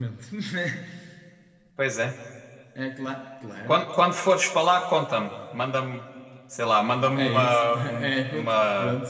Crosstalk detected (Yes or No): Yes